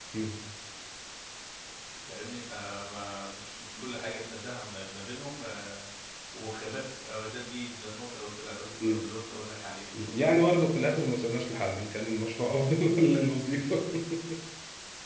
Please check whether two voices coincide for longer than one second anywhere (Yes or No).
No